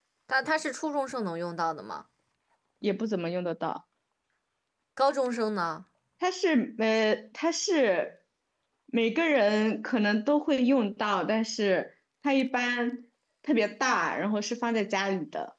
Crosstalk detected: No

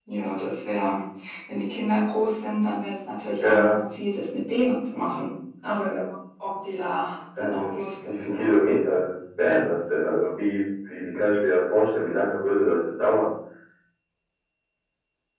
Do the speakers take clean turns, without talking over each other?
No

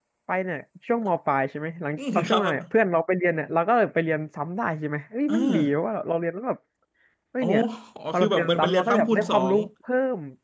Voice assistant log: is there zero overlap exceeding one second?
No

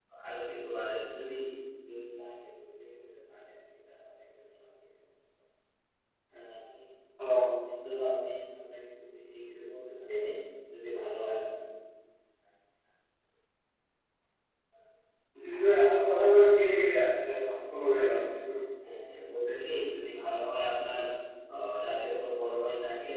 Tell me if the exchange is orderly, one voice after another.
Yes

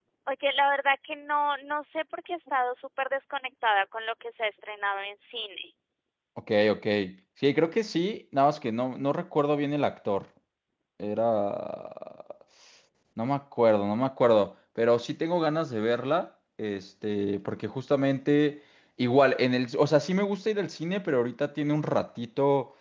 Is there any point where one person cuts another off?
No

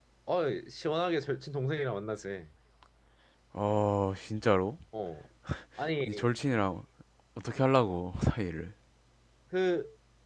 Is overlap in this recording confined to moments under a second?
Yes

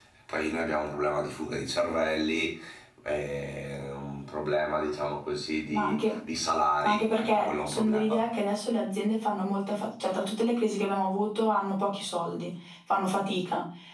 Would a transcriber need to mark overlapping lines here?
Yes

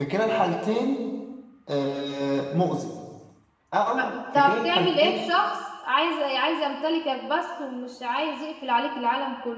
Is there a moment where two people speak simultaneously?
Yes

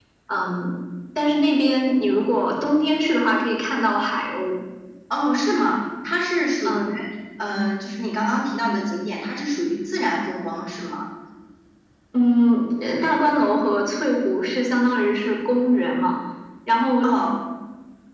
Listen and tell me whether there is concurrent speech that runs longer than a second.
No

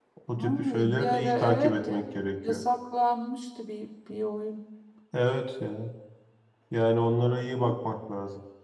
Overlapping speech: Yes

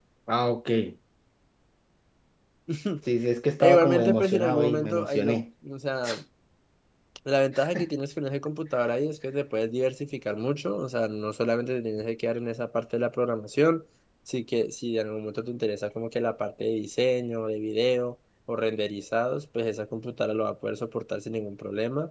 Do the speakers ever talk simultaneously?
Yes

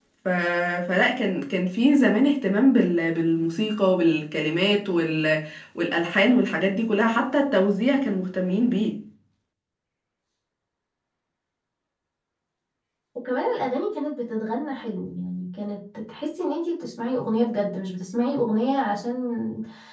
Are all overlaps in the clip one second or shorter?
Yes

